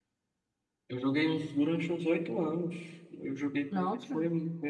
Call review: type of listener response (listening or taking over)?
listening